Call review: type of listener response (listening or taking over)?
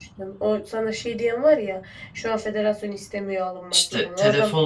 taking over